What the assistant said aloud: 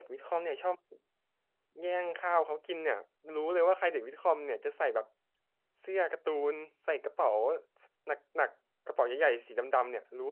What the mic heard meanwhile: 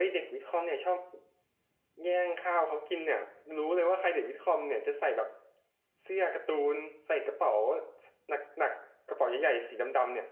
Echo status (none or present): present